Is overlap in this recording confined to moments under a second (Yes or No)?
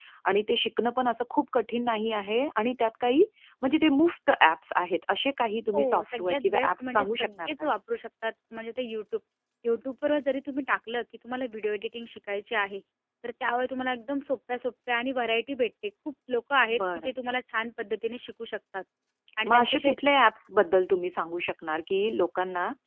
No